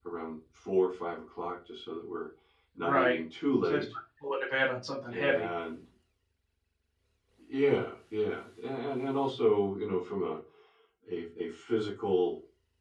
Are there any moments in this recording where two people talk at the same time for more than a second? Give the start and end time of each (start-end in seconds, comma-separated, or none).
none